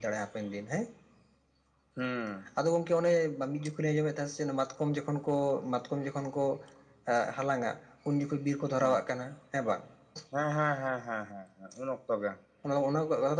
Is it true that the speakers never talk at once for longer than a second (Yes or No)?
Yes